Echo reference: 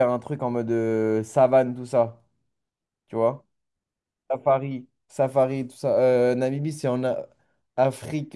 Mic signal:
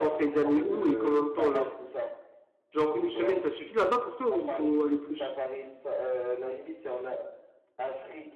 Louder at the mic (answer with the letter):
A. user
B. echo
A